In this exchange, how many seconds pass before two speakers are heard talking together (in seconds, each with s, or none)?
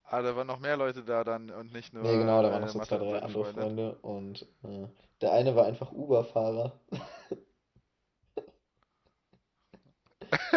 2.0 s